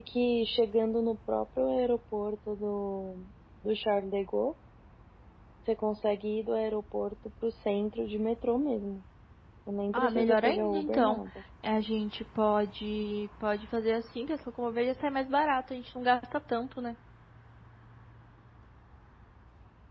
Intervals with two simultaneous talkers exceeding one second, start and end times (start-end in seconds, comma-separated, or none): 9.9-11.2